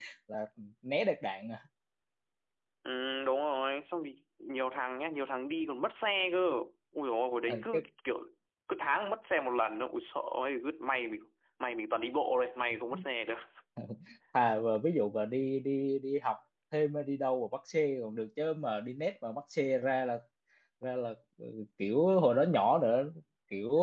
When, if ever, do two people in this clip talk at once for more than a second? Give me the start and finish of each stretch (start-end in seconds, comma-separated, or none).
none